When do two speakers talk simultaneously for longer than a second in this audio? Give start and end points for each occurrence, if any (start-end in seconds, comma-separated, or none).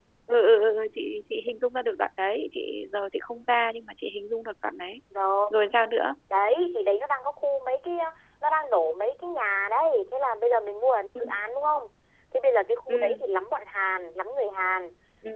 none